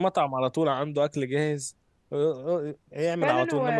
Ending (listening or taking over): taking over